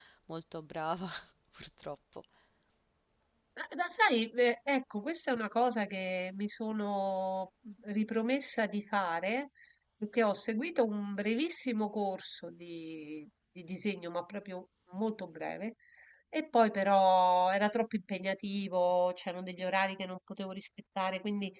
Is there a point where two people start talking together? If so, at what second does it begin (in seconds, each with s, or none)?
none